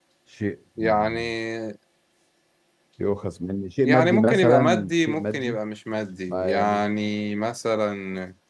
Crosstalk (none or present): present